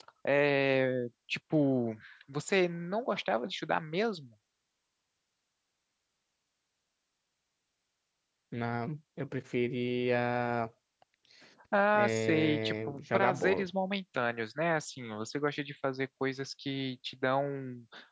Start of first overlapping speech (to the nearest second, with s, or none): 12 s